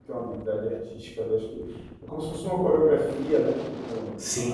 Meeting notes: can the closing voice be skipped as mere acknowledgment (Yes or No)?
No